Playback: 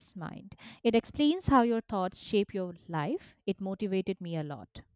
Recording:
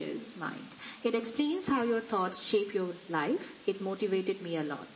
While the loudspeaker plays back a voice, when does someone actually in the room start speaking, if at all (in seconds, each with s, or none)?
none